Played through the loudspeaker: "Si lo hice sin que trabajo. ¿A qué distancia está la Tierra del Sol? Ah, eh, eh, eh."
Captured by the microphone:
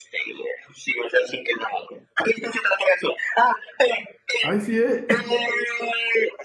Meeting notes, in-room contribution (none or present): present